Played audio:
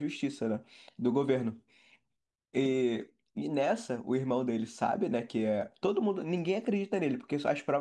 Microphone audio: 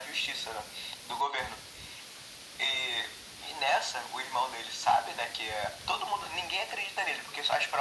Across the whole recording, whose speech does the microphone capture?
echo only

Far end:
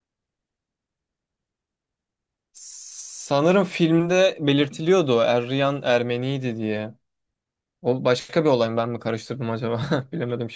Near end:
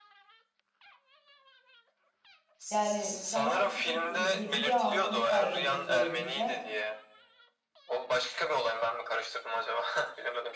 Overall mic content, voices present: both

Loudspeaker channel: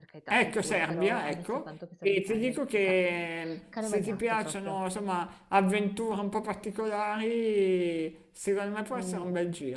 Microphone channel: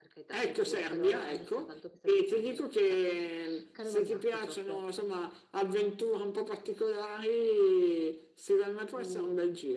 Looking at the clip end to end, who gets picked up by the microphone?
echo only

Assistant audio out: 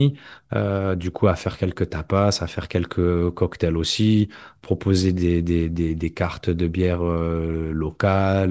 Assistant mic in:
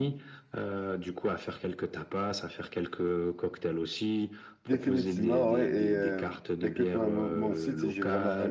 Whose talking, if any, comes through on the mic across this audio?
both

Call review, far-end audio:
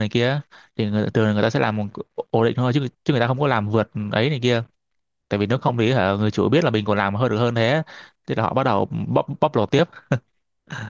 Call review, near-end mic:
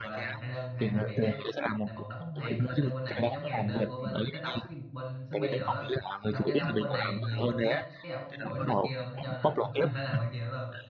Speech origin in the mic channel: both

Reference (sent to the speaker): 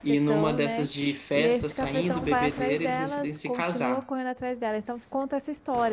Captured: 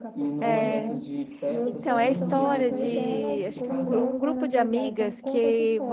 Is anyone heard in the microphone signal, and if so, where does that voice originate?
both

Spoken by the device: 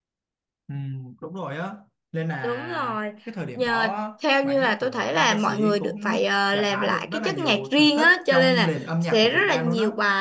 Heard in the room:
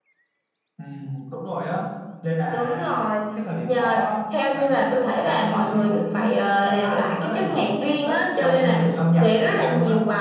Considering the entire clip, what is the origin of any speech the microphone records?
echo only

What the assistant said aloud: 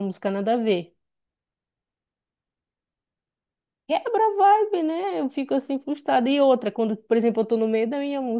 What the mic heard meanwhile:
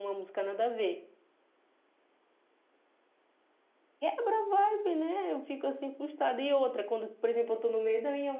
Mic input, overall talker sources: echo only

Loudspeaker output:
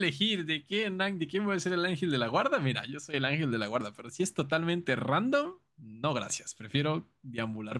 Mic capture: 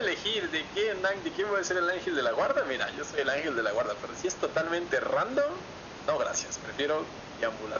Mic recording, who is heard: echo only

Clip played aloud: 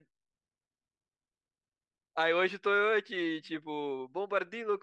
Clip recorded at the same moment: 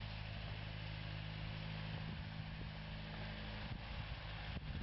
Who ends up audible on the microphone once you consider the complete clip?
neither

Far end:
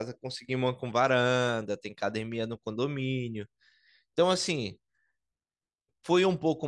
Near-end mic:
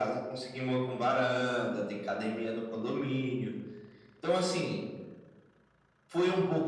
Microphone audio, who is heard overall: echo only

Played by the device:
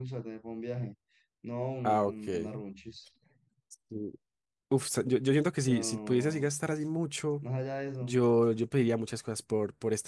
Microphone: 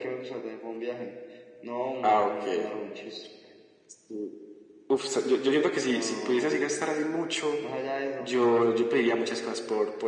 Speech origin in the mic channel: echo only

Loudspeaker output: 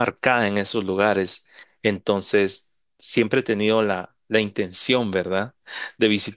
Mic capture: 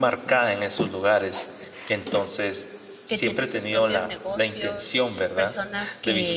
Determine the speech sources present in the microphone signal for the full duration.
both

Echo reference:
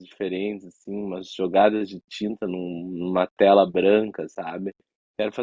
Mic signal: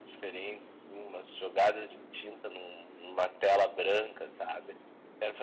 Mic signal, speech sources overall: echo only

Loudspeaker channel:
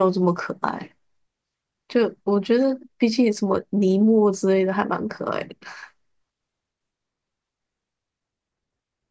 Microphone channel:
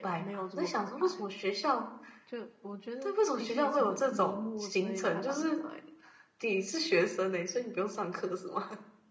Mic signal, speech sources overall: both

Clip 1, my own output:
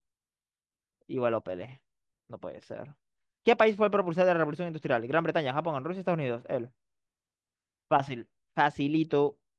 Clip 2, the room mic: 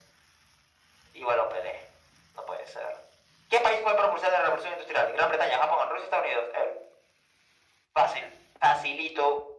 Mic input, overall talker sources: echo only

